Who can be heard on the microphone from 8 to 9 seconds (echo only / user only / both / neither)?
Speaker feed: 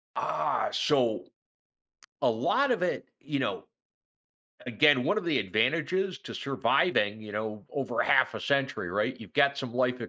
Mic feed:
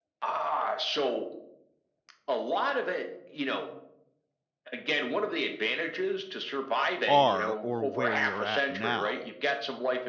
both